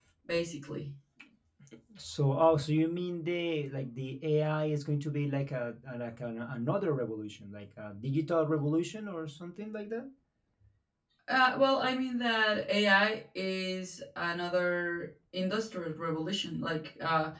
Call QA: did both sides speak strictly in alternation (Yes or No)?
Yes